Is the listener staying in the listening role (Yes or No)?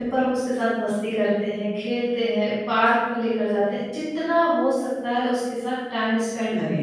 No